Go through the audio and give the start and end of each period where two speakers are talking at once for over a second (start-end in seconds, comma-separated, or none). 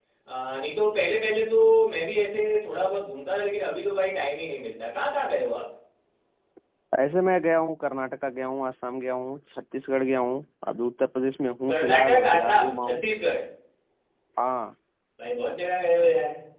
11.7-13.0